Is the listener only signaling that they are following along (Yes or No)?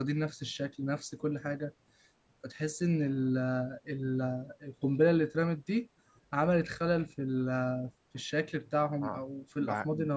No